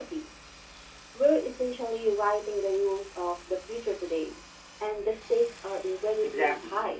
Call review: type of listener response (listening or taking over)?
taking over